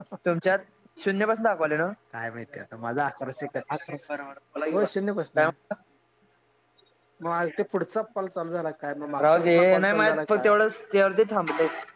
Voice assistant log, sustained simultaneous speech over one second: present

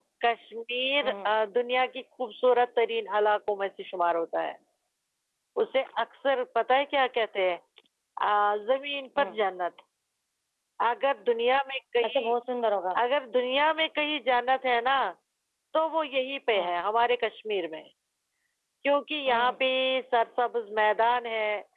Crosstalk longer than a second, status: none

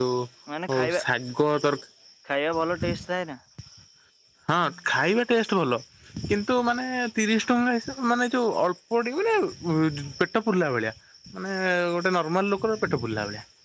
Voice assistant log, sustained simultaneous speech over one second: none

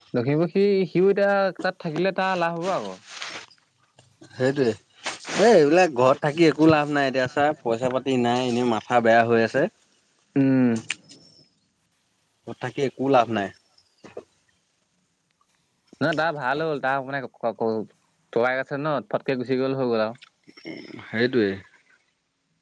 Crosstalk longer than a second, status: none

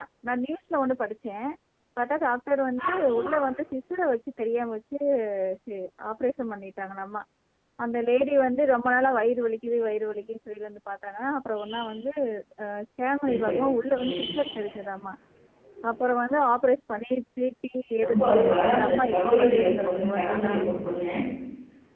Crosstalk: present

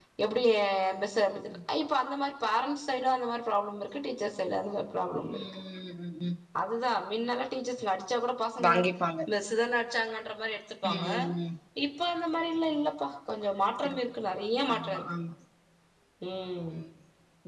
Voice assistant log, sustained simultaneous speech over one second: none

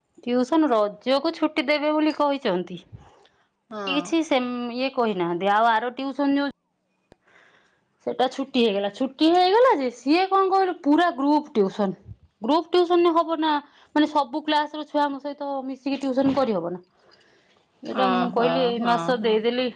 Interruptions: present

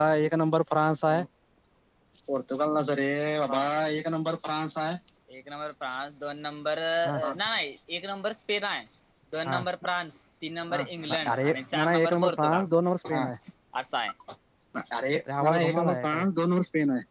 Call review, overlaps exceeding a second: present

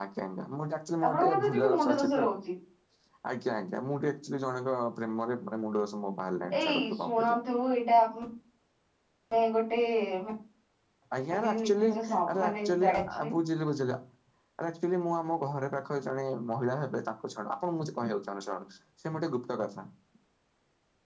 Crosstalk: present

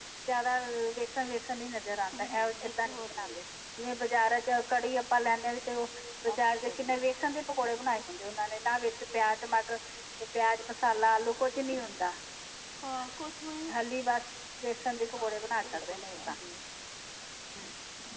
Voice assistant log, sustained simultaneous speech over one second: present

